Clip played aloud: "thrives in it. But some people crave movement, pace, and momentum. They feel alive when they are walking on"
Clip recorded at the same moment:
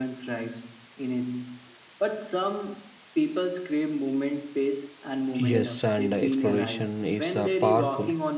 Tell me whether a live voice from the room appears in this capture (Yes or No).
Yes